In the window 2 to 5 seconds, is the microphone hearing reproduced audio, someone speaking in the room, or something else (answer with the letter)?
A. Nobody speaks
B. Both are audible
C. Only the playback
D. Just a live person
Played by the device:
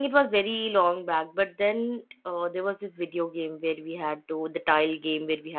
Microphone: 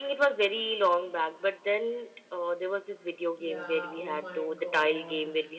B